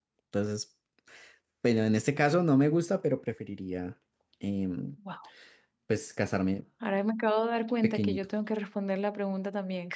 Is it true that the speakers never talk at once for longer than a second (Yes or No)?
Yes